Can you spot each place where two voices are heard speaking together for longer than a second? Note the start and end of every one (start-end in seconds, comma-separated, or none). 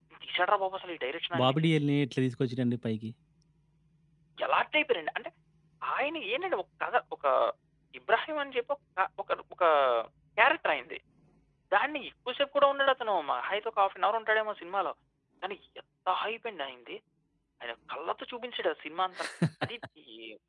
none